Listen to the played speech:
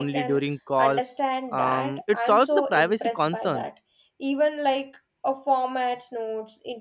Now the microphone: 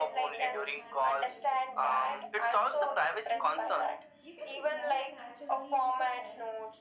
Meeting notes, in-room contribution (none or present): present